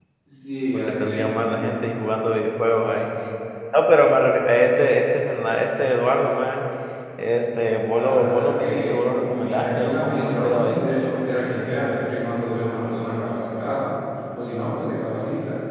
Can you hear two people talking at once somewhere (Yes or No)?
Yes